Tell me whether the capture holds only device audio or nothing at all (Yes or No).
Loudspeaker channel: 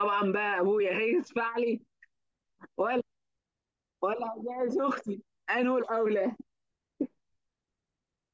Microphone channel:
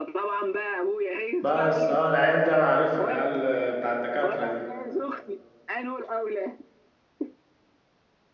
No